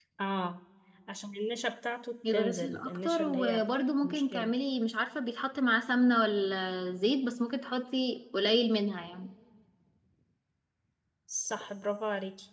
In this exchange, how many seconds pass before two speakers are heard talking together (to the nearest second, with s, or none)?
2 s